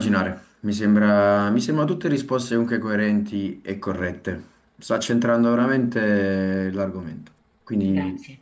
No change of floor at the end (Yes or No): Yes